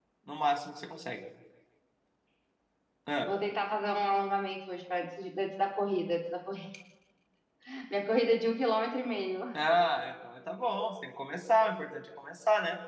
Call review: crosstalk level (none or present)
none